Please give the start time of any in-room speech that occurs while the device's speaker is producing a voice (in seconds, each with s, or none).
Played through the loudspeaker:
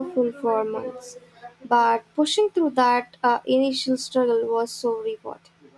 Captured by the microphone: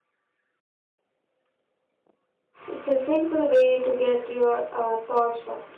2.7 s